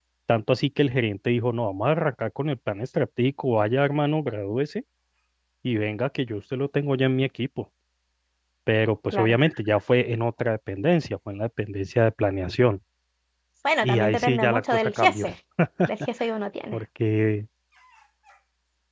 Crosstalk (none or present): present